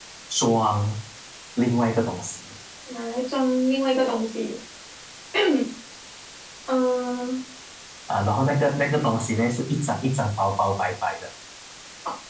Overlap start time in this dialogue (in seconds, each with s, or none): none